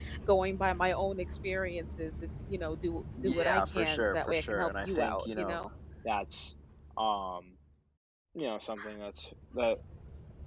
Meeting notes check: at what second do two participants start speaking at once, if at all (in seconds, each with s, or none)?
3.2 s